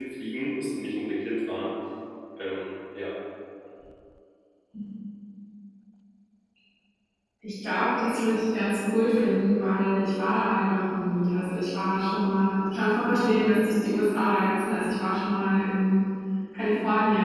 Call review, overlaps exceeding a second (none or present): none